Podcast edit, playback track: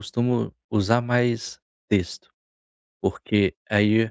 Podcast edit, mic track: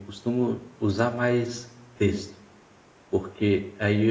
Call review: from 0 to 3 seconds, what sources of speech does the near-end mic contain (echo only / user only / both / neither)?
echo only